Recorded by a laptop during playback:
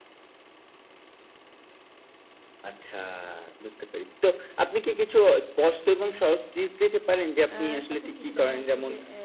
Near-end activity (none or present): present